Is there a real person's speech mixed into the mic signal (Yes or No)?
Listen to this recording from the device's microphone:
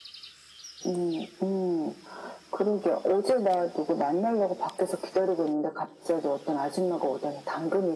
No